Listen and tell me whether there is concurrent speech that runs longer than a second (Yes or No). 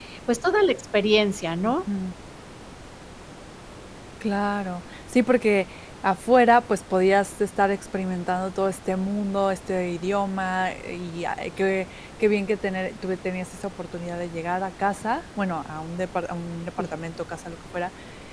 No